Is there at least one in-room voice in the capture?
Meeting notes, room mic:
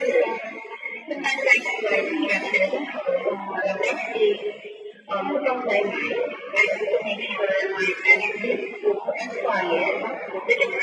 No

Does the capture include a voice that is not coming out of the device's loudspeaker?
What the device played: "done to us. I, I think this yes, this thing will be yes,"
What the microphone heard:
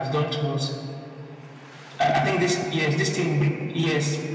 No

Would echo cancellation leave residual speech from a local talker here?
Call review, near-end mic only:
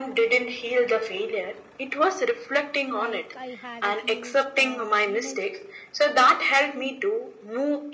Yes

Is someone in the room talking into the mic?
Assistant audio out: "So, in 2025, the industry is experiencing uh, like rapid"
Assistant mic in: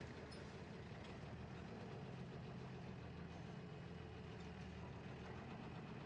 No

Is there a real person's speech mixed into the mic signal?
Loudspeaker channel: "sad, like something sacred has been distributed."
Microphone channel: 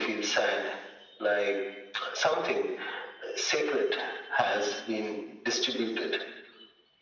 No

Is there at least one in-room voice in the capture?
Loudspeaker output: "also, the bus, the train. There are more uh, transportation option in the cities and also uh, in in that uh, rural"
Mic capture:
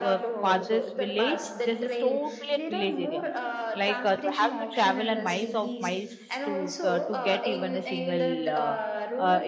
Yes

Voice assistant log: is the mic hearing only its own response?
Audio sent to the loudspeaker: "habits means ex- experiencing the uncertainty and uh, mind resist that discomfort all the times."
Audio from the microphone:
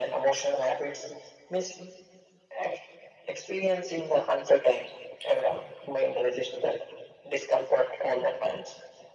Yes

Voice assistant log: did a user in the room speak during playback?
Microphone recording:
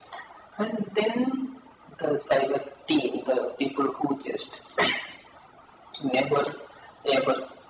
No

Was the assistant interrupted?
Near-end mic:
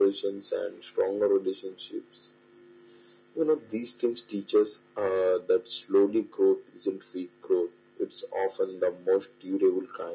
No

